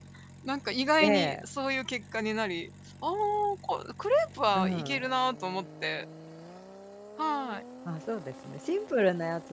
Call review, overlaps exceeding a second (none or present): none